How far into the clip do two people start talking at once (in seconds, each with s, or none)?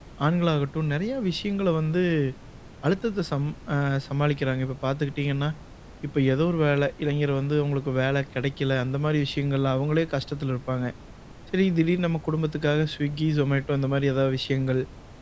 none